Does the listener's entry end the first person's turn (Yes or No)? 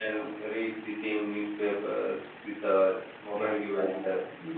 Yes